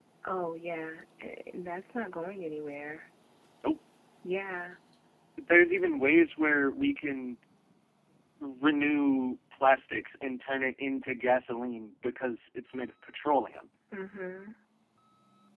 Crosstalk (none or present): none